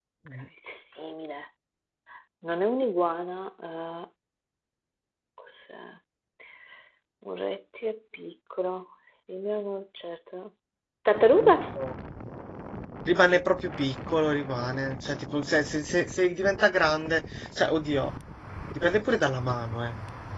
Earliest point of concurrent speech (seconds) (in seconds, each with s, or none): none